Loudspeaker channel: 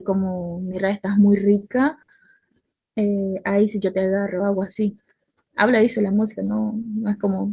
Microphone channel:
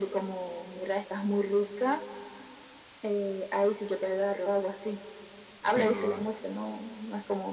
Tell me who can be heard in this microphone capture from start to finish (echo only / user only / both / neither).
both